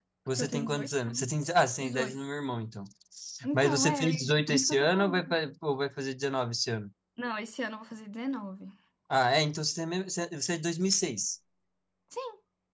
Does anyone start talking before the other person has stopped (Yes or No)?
Yes